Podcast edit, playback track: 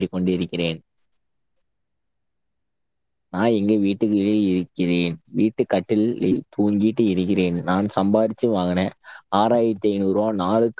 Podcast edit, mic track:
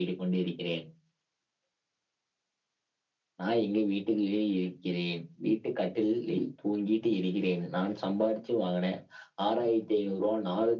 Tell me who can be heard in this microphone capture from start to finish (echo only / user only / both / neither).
echo only